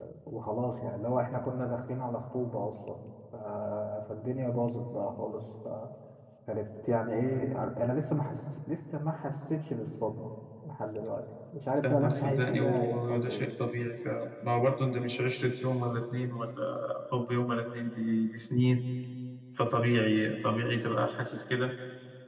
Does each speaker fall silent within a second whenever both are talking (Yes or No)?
No